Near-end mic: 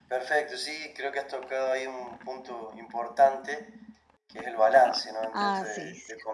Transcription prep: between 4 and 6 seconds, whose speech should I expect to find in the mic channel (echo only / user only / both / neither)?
both